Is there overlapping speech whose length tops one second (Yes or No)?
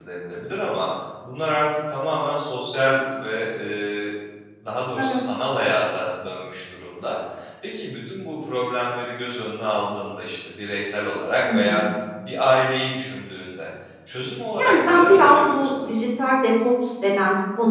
Yes